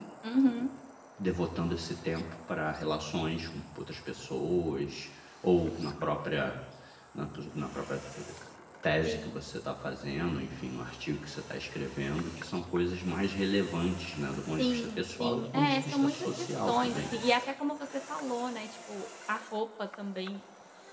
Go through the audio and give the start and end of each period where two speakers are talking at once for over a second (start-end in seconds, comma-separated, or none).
14.6-17.2